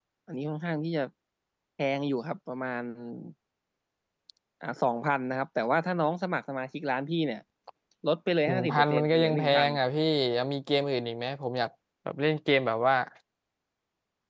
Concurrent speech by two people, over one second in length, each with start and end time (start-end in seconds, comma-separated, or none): 8.5-9.7